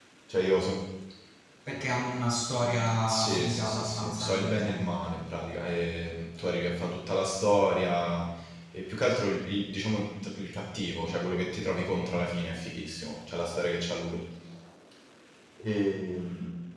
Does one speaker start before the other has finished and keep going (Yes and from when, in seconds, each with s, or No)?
Yes, from 3.1 s